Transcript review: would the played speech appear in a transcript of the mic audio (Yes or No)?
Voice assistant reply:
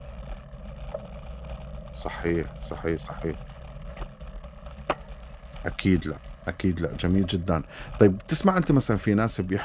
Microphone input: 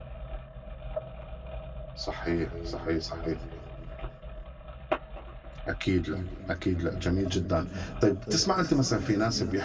Yes